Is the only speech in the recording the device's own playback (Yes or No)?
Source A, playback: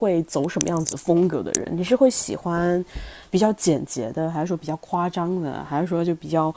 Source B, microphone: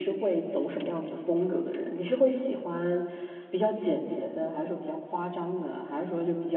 Yes